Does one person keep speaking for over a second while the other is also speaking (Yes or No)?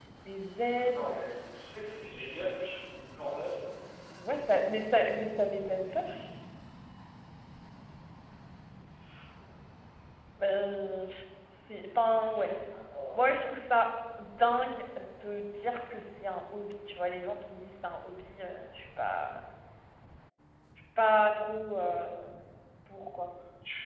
No